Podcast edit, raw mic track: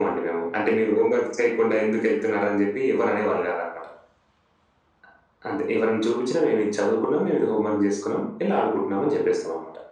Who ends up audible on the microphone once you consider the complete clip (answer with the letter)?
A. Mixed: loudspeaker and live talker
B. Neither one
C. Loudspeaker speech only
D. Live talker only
C